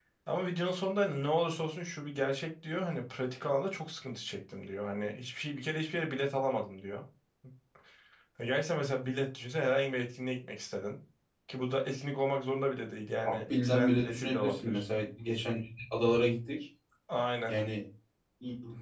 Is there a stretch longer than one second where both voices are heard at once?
Yes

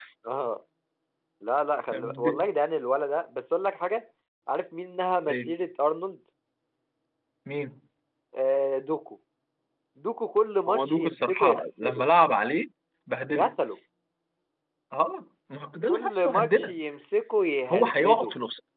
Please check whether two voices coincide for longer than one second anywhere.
Yes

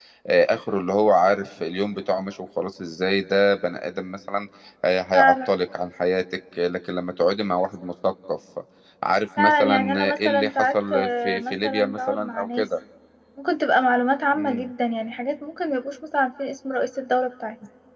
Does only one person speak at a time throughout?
No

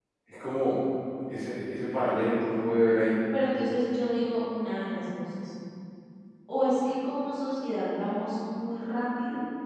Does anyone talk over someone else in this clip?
No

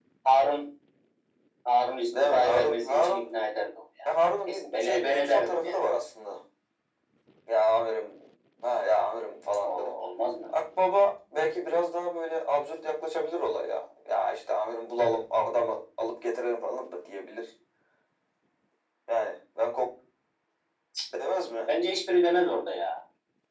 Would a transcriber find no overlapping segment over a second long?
No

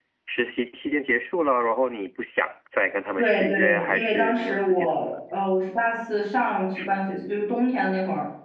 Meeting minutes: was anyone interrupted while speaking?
Yes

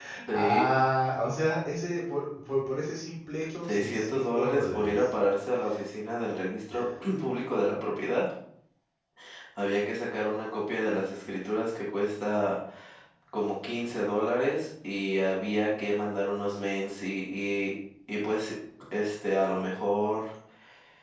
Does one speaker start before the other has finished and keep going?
Yes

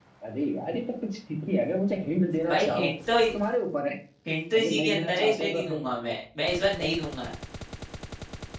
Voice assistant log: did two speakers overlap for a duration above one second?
Yes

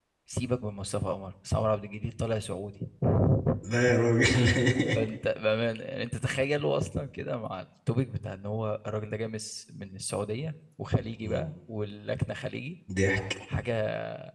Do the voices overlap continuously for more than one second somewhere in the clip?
No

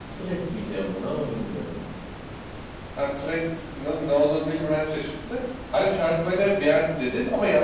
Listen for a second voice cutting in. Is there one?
No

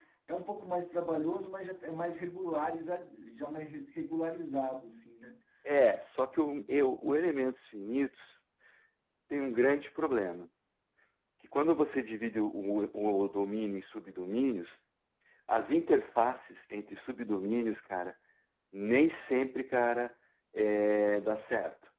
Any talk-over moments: No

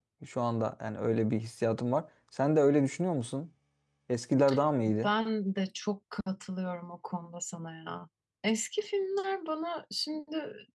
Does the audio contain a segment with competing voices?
No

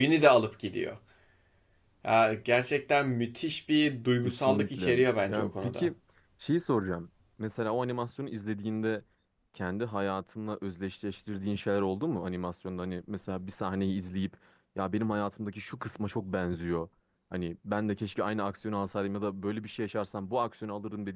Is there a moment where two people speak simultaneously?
Yes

